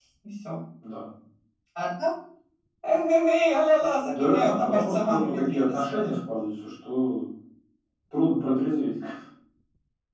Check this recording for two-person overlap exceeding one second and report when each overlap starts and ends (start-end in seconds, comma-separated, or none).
4.1-6.1